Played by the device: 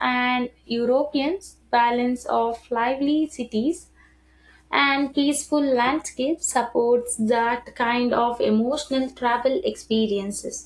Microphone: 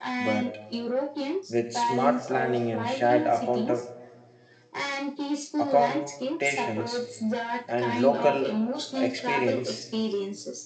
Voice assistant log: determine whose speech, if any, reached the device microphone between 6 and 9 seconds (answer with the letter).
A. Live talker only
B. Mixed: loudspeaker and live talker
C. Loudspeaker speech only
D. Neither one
B